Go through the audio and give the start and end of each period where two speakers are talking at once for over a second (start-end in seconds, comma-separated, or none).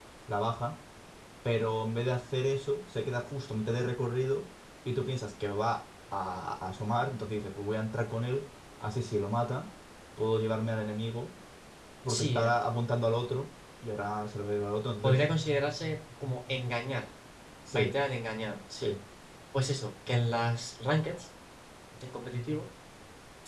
none